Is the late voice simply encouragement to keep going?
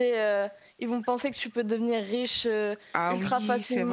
No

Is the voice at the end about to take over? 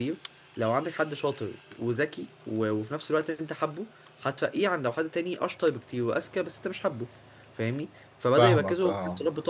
No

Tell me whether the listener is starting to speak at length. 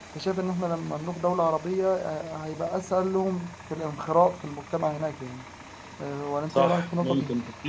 Yes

